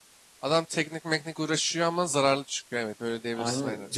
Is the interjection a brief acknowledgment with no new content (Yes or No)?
No